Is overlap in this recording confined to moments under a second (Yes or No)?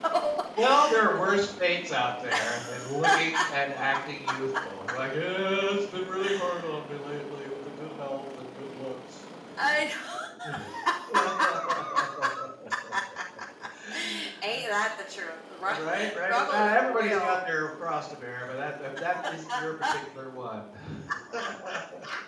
No